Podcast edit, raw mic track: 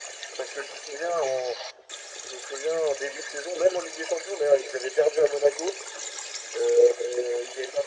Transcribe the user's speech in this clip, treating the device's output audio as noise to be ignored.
none

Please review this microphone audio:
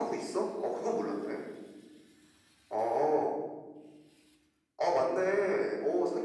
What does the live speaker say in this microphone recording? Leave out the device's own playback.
none

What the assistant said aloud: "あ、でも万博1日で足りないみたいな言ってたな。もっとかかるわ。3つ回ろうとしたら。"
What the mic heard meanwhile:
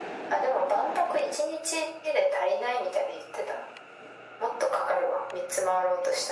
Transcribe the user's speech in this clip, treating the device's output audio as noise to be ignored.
none

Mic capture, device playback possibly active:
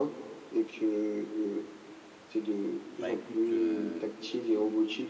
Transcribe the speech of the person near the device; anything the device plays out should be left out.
Bah écoute, euh,

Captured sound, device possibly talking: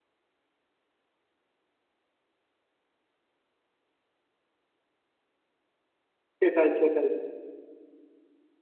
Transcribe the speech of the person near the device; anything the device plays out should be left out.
সেটাই সেটাই

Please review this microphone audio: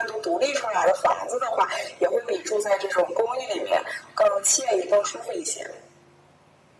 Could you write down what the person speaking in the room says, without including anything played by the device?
none

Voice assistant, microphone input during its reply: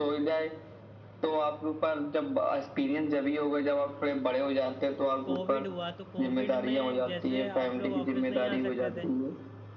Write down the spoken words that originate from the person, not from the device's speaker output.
कोविड हुआ तो कोविड में जैसे आप लोग ऑफिस नहीं आ सकते थे

